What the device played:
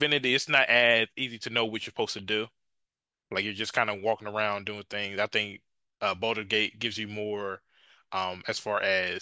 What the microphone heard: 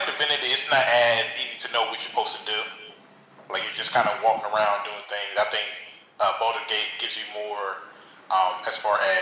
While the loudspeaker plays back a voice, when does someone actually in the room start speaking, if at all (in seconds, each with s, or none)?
none